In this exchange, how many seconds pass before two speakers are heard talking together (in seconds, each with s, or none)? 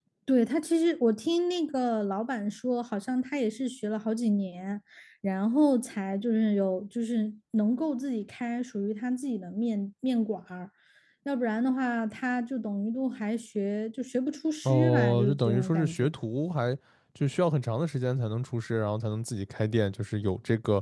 14.6 s